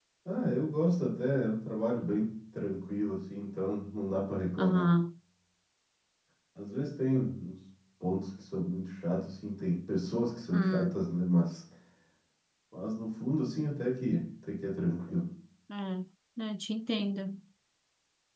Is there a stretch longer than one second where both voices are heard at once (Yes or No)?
No